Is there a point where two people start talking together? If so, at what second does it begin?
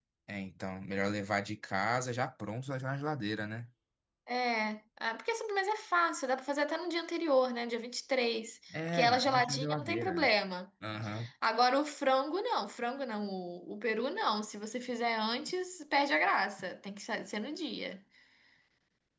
8.7 s

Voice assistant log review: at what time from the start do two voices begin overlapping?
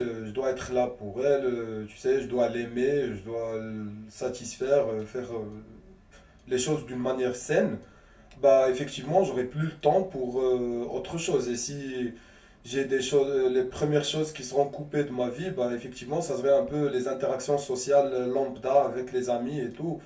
none

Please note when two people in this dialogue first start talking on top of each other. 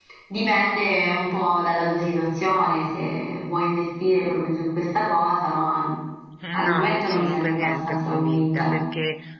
6.7 s

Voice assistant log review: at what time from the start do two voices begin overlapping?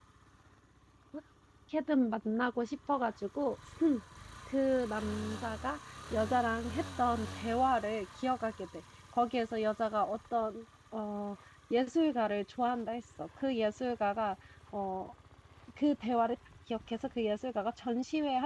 none

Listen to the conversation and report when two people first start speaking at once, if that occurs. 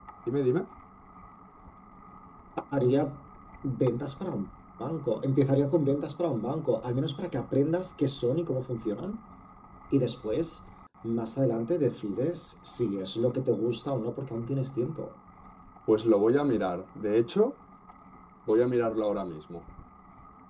none

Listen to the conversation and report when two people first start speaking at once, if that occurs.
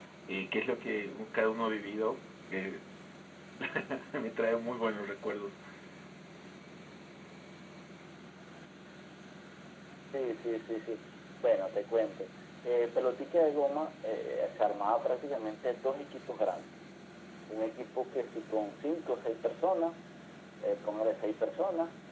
none

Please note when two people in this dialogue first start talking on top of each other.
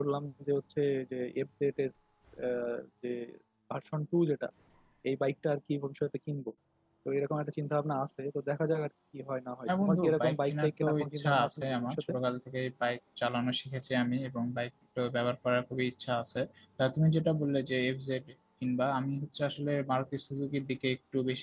9.7 s

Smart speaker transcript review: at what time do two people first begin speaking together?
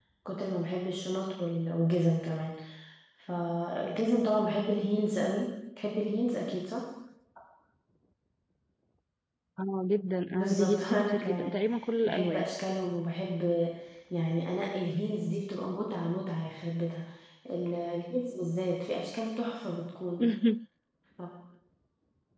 10.3 s

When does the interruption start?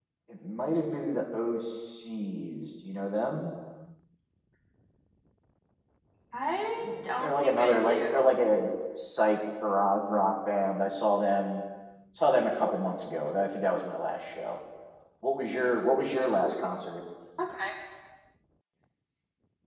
6.8 s

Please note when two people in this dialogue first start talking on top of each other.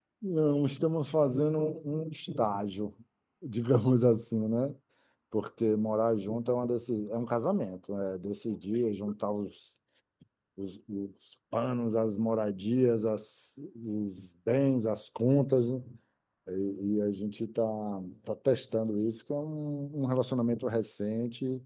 none

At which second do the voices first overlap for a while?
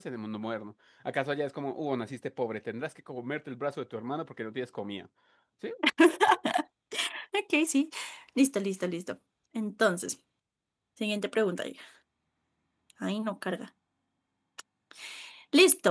none

